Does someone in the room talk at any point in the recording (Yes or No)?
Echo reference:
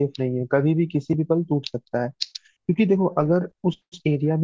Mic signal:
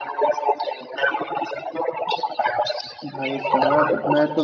Yes